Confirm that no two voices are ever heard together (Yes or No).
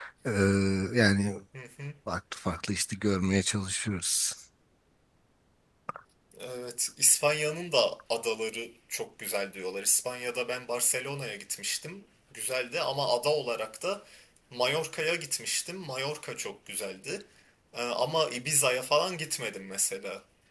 Yes